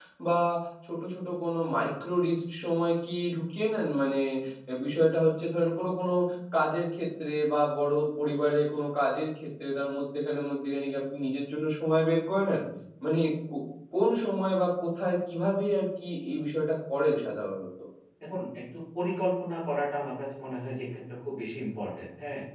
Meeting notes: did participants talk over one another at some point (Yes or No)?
No